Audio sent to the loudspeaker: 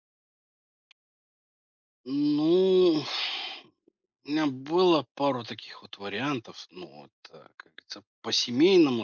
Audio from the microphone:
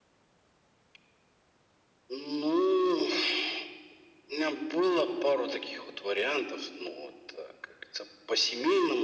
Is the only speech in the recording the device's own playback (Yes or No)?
Yes